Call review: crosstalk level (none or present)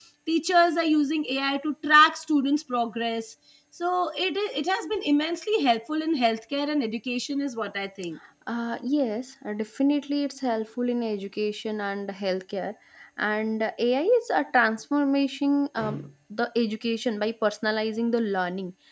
none